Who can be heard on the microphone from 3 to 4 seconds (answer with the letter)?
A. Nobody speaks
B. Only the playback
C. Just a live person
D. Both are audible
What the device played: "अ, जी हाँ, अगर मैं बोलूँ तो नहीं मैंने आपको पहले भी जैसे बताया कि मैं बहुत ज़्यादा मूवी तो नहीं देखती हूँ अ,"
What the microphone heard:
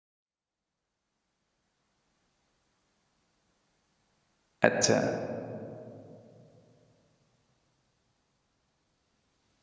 A